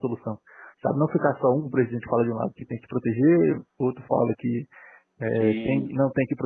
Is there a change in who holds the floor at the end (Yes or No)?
No